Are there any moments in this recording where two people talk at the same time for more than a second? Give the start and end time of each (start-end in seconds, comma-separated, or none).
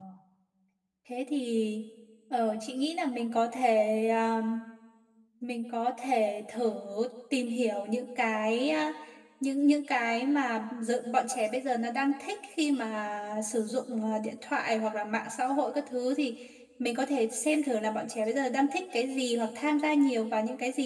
none